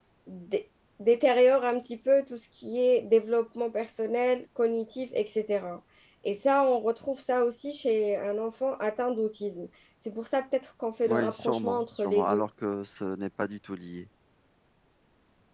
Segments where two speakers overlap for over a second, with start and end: 11.0-12.4

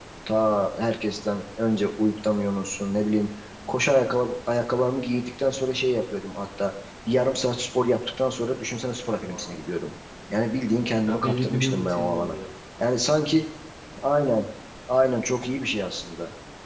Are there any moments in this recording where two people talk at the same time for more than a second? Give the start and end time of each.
11.1-12.4

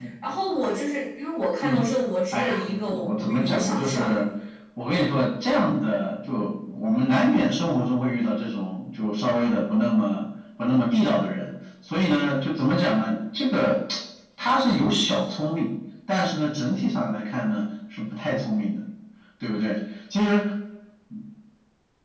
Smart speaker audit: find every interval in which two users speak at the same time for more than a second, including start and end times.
2.3-4.1

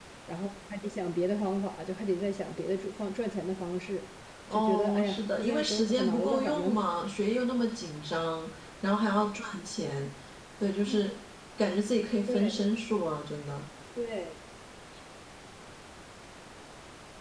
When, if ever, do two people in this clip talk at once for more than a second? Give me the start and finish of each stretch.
4.5-6.7

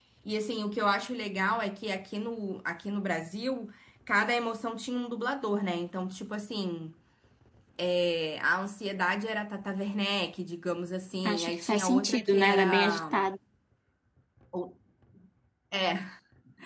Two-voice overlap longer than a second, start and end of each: 11.2-13.1

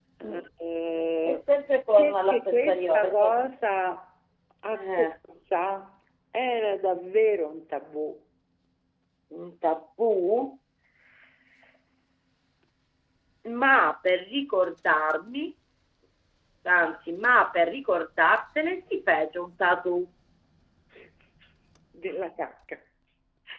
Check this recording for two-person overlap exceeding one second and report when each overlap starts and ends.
2.0-3.3

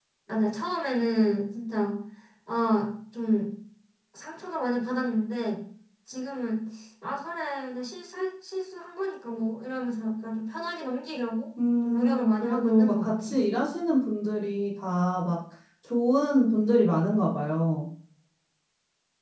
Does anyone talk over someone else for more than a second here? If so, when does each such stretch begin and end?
11.8-13.4

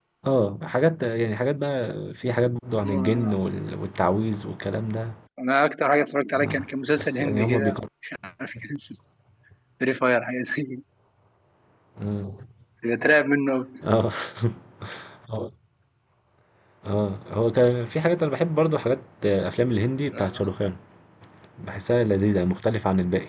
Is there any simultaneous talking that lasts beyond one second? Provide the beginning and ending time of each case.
6.4-7.8

